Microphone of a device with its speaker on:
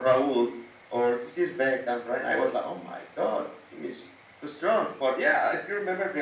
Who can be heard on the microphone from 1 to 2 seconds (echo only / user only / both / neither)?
echo only